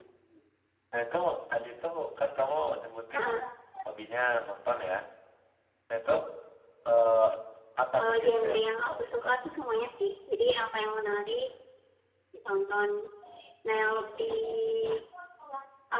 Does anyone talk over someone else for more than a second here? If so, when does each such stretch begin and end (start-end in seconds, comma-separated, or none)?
8.0-9.3